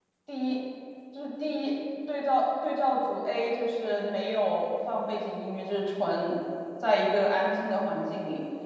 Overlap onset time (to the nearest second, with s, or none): none